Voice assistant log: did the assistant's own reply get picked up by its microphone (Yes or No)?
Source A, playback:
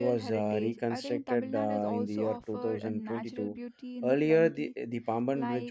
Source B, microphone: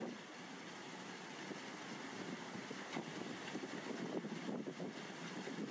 No